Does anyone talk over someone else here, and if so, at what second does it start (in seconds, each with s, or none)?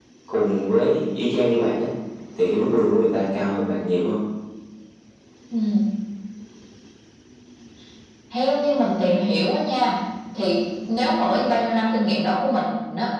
none